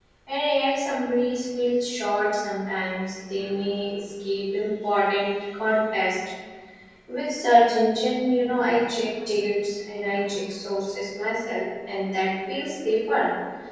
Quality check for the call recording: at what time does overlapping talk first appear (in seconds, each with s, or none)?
none